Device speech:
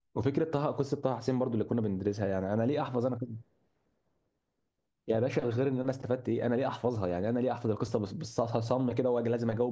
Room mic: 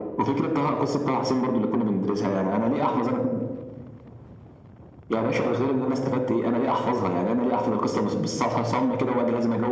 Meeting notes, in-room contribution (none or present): none